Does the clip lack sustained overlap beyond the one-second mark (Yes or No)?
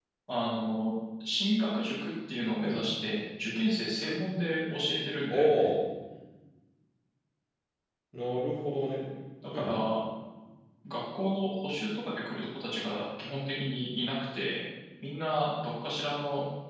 Yes